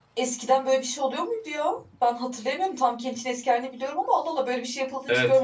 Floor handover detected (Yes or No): Yes